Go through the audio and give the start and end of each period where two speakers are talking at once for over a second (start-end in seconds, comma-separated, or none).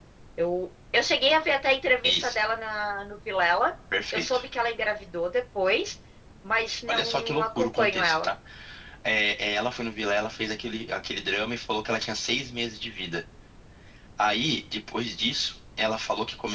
6.9-8.3